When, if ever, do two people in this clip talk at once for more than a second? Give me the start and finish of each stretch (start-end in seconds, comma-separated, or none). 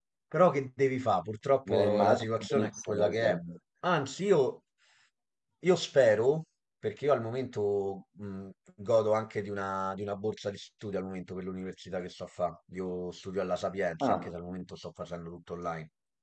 1.7-3.3